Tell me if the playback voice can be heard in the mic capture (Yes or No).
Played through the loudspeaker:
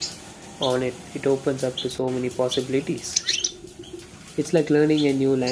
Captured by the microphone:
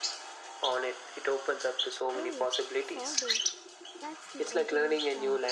Yes